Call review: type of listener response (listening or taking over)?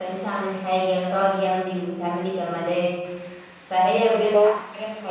listening